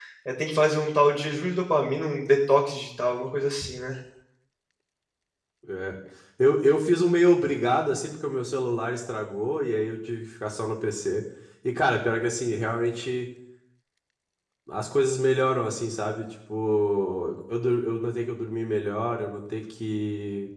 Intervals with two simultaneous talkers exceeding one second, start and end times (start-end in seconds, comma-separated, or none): none